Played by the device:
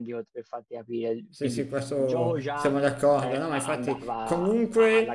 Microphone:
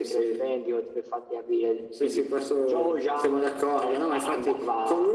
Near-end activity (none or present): none